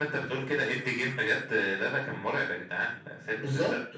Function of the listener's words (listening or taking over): listening